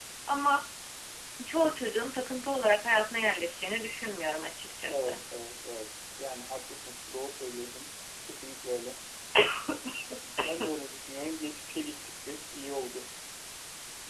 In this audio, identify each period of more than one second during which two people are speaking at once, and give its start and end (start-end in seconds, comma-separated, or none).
none